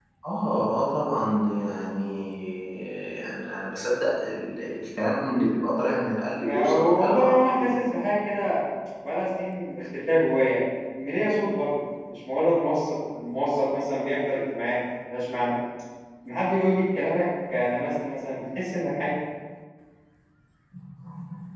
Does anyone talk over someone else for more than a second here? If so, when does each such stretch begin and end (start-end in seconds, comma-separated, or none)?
6.4-7.8